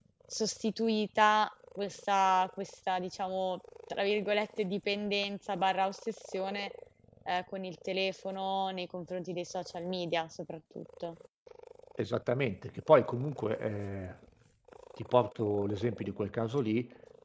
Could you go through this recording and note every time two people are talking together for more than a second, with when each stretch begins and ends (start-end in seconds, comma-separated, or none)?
none